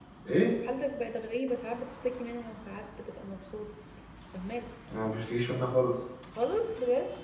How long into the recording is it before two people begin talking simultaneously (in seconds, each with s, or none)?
none